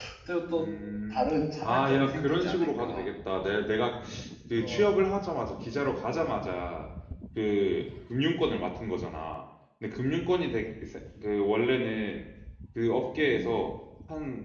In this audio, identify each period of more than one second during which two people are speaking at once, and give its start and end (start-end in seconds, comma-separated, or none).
1.6-3.1